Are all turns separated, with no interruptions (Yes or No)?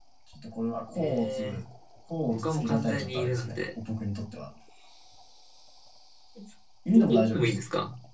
No